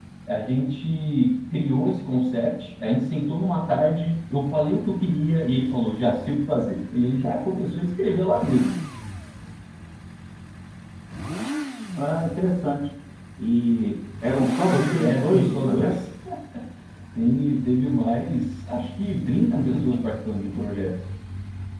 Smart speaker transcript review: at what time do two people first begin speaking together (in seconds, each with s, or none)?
14.7 s